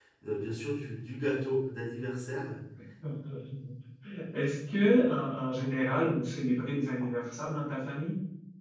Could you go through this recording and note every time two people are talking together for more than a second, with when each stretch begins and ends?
none

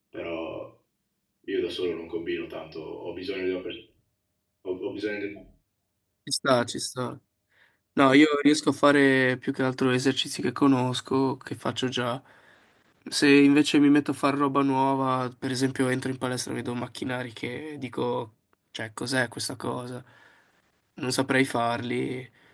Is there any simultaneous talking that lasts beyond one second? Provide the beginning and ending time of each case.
none

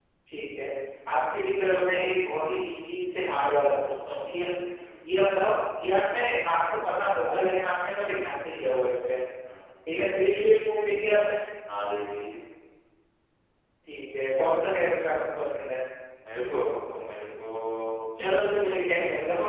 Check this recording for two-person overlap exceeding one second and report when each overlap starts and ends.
none

